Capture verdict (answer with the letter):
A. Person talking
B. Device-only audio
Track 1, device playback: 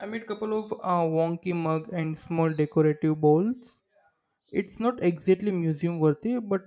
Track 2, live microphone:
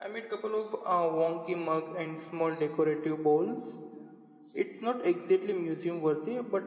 B